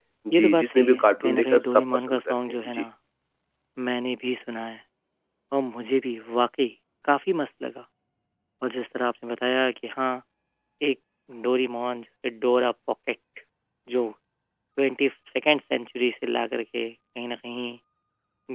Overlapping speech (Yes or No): Yes